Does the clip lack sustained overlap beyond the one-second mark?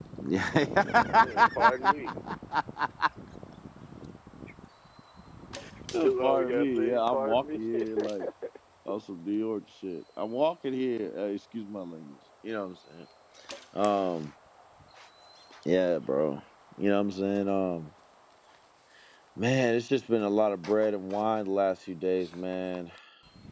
No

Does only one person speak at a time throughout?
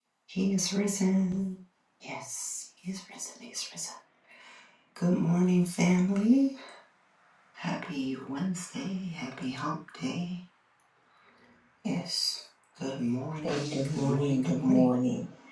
No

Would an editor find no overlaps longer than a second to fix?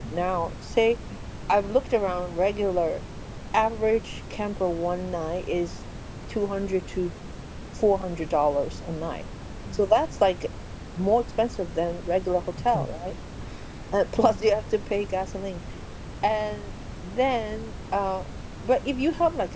Yes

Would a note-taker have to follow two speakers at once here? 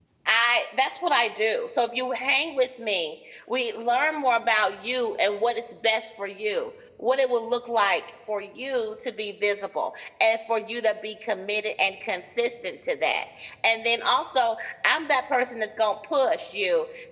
No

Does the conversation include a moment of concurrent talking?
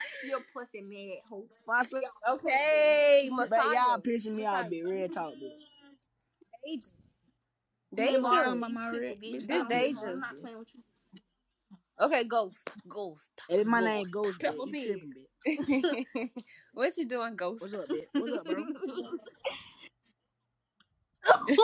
Yes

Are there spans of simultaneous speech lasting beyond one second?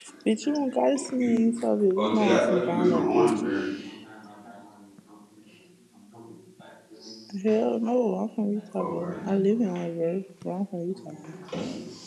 Yes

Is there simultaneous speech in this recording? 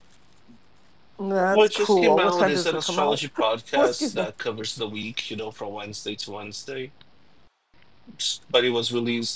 Yes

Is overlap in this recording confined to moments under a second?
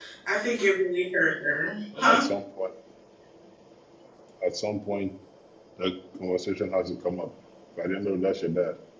Yes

